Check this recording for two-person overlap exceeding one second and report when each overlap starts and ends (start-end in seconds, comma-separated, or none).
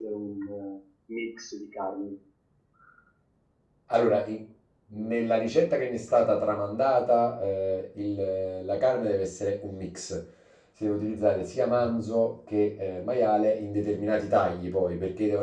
none